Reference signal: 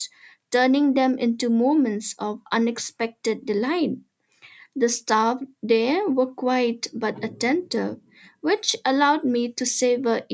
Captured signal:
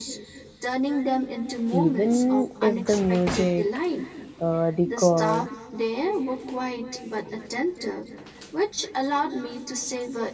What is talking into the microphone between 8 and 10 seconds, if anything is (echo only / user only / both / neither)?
echo only